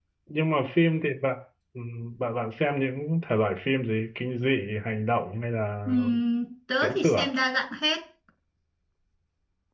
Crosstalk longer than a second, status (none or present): none